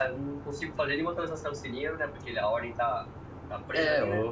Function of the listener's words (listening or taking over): taking over